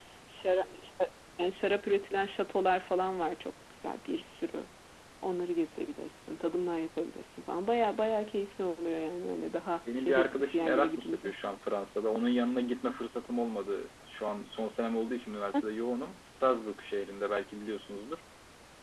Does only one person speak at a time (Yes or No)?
No